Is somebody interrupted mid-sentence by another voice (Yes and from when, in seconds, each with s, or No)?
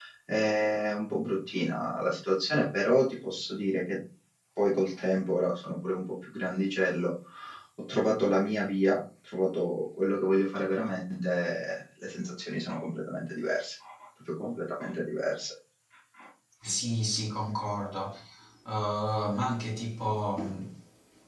No